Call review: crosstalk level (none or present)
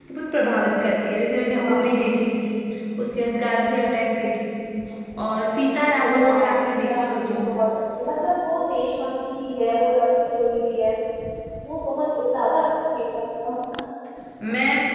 present